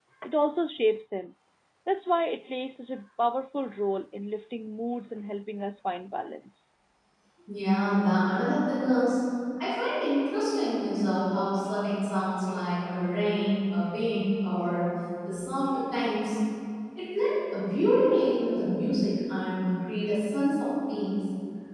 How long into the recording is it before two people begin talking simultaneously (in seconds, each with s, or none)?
none